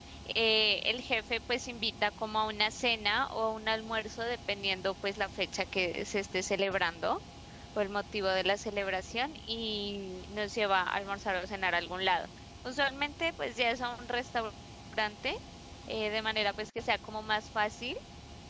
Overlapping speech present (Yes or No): No